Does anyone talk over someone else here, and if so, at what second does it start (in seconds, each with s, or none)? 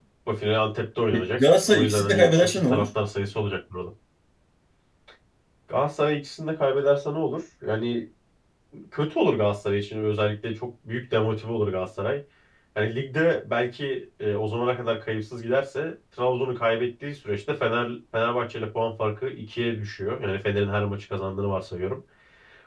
1.1 s